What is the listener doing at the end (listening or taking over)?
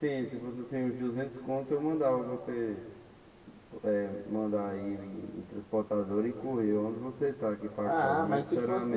taking over